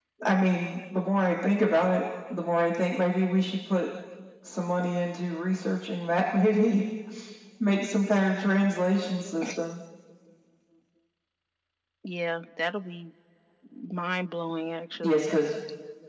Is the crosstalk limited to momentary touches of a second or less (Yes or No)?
Yes